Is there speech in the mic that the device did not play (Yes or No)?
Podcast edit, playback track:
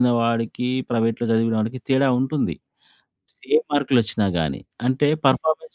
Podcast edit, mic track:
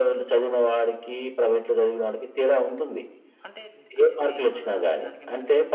Yes